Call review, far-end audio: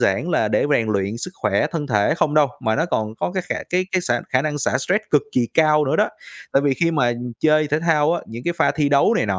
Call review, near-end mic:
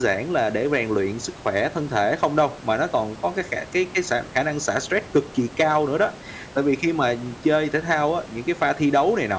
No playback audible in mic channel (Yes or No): No